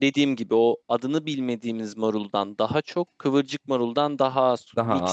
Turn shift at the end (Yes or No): No